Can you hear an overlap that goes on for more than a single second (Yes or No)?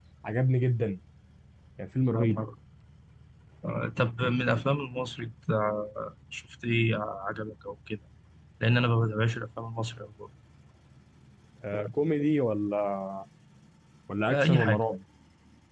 No